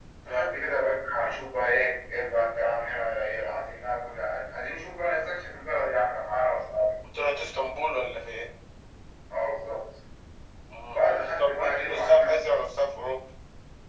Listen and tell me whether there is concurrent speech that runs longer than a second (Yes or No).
Yes